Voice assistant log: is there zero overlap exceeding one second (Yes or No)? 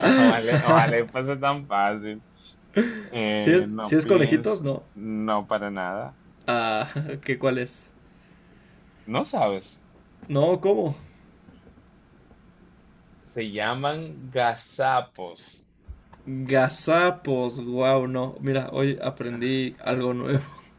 No